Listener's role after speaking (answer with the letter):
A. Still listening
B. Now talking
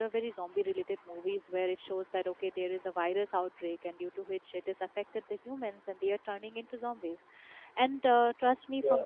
A